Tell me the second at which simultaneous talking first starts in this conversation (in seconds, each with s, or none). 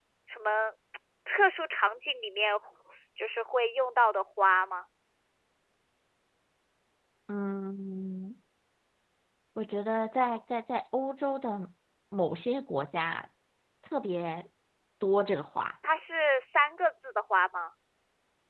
none